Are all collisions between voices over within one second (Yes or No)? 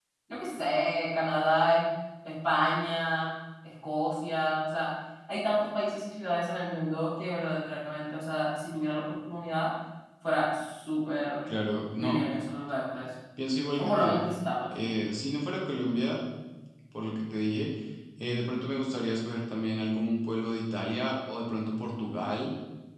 Yes